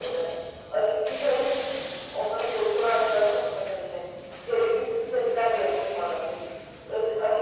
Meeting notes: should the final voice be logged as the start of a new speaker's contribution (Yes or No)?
No